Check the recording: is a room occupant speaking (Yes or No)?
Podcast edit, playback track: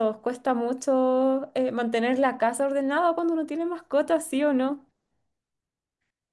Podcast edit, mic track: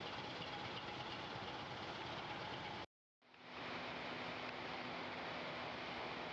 No